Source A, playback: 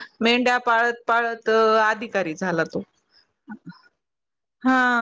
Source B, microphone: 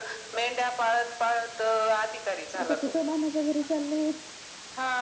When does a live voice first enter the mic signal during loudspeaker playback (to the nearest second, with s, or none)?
3 s